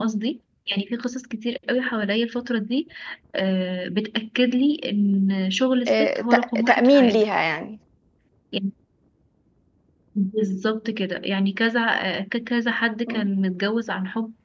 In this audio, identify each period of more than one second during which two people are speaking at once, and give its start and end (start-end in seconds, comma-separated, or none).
5.9-7.2